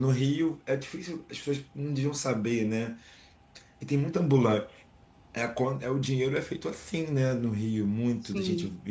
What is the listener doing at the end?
listening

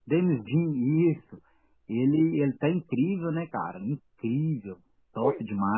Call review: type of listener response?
taking over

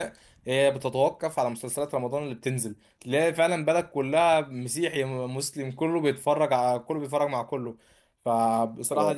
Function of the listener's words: listening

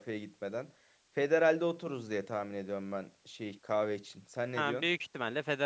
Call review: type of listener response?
taking over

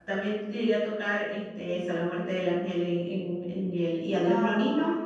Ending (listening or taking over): listening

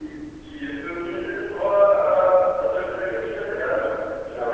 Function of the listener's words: listening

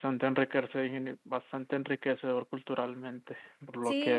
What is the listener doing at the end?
taking over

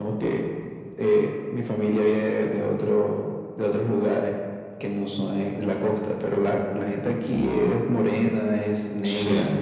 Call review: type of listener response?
listening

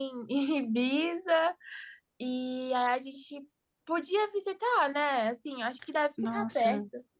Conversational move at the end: taking over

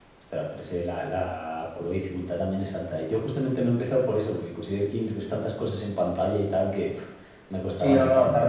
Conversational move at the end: taking over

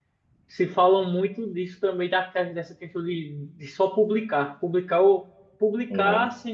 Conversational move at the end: listening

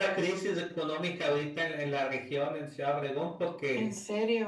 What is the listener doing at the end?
listening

